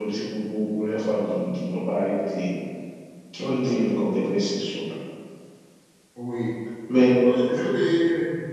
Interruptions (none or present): none